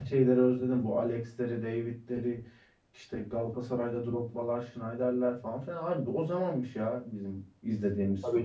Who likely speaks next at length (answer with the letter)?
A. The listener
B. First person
A